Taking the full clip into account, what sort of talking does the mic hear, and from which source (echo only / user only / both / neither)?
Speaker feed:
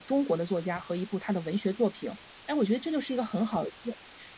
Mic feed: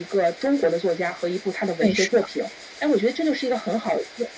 both